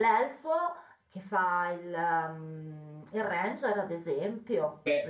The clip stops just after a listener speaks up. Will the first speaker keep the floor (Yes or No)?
No